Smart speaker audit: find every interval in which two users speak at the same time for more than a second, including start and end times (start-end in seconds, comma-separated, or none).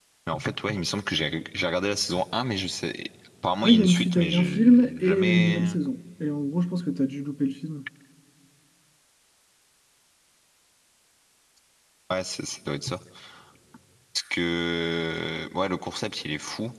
3.6-5.7